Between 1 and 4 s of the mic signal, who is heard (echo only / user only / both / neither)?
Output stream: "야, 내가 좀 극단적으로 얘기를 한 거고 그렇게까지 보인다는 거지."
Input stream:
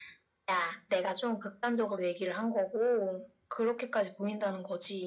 echo only